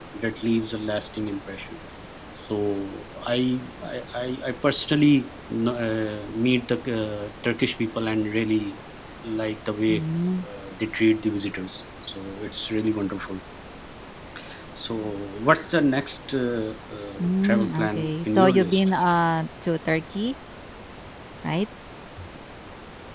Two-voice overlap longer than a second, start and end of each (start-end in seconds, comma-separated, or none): 17.2-18.9